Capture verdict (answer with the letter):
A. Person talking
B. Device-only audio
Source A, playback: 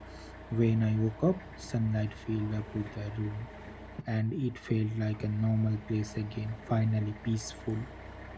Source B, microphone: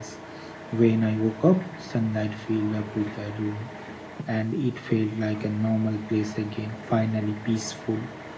B